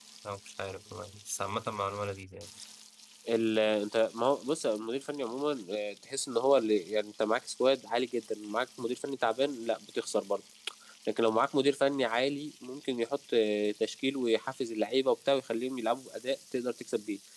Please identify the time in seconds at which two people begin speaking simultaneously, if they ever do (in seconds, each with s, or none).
none